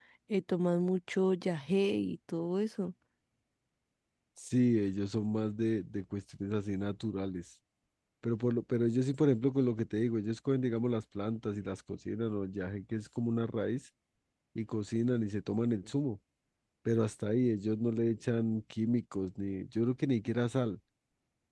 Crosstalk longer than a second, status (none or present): none